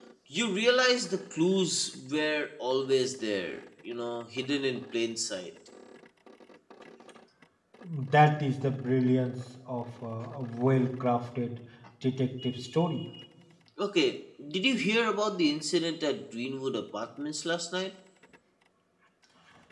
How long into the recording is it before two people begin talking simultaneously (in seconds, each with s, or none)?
none